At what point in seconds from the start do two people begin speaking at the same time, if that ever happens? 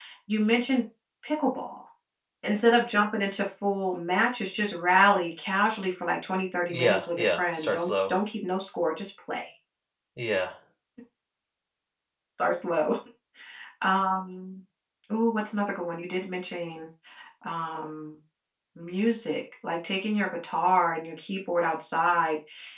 6.7 s

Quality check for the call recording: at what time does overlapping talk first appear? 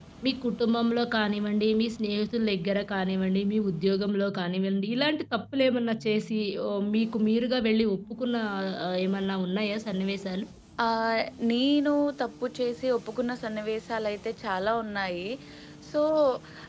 none

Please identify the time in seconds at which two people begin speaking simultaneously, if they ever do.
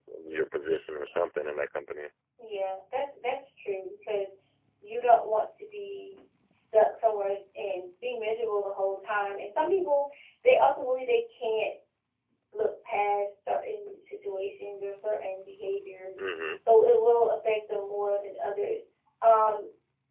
none

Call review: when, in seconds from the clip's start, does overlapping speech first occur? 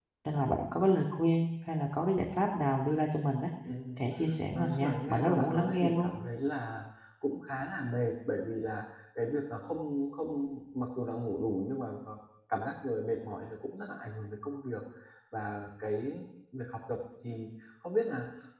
4.5 s

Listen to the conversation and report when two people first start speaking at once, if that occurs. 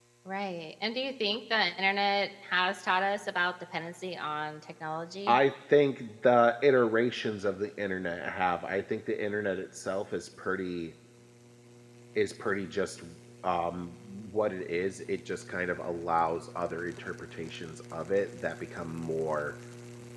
none

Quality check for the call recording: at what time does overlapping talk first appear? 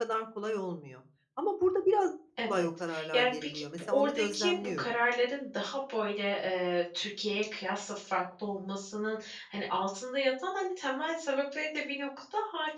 2.4 s

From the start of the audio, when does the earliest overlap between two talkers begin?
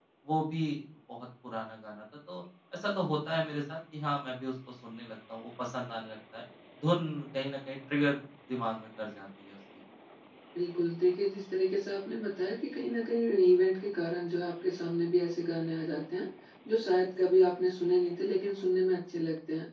none

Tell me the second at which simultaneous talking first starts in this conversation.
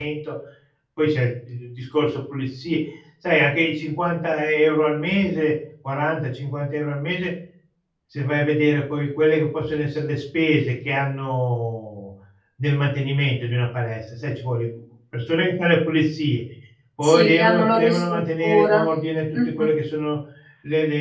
17.0 s

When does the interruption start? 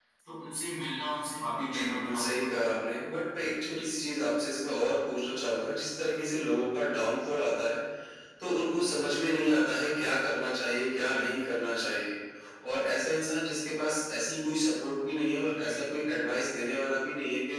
1.6 s

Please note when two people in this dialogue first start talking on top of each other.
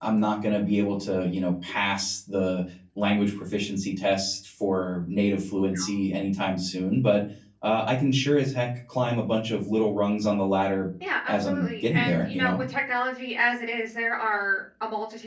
11.3 s

